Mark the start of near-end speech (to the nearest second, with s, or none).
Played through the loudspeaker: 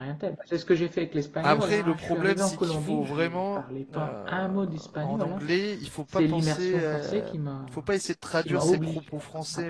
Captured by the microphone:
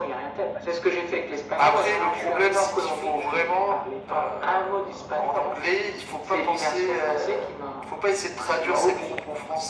none